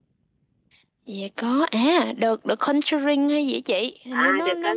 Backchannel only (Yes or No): No